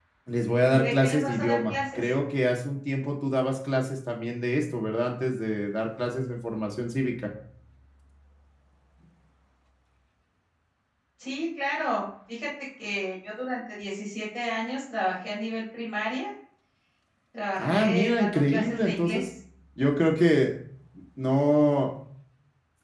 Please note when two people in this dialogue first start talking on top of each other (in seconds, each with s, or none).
0.7 s